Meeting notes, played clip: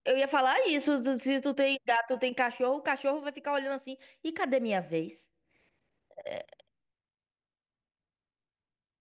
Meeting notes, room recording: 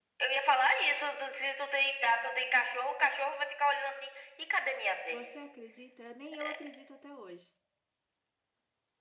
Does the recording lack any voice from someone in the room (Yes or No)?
No